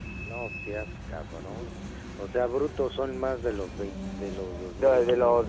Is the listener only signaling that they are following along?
No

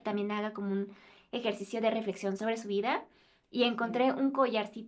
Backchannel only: Yes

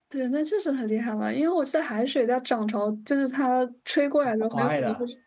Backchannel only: No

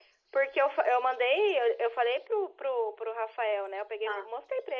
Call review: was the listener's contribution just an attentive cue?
Yes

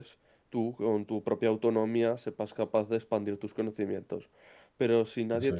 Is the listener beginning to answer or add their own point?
No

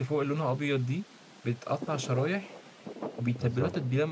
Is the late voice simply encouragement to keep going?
Yes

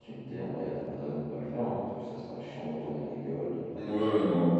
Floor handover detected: Yes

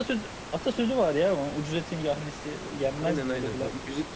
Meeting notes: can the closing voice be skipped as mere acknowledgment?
No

